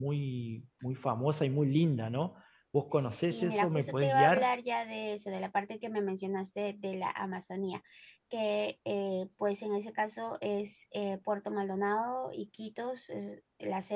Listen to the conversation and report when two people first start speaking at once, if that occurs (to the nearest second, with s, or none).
3 s